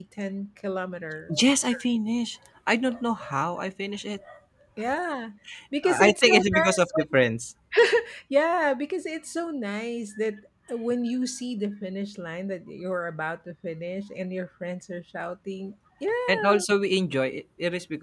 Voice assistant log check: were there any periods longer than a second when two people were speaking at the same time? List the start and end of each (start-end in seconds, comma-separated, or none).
5.8-7.0